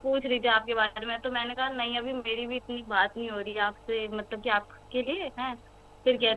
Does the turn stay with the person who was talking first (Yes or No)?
Yes